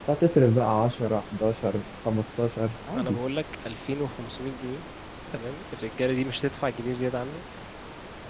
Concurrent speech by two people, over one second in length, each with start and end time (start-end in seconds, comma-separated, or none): none